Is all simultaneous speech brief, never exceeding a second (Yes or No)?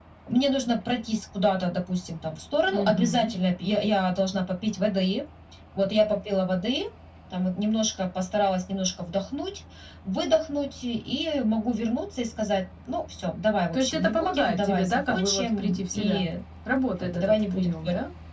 No